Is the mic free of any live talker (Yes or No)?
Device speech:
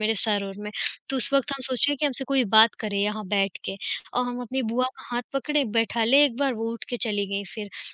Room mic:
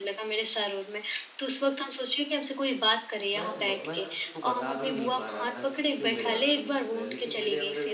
No